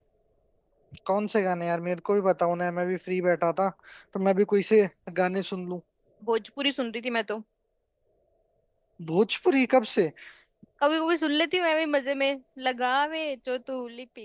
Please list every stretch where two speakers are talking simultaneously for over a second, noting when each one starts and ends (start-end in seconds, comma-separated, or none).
none